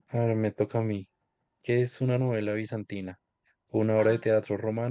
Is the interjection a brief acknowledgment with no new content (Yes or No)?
Yes